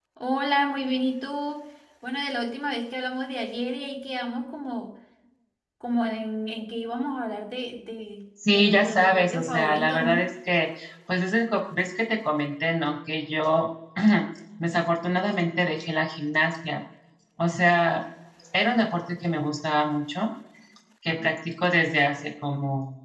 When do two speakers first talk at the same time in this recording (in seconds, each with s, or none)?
8.4 s